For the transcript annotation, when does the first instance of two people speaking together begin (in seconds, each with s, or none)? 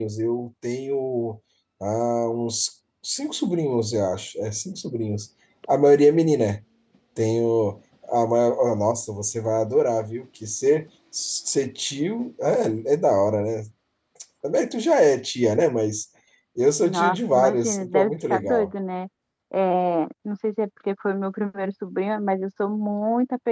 16.8 s